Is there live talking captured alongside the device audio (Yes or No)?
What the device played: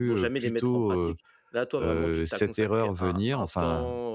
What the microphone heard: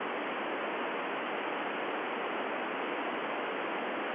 No